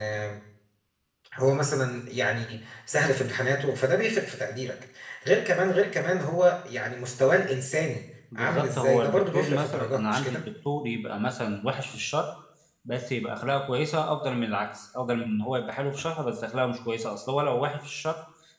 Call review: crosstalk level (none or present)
present